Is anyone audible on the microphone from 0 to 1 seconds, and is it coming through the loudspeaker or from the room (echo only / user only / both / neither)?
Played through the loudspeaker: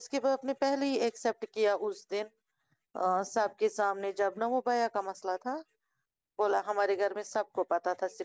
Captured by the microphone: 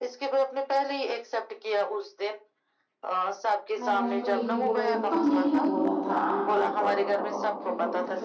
echo only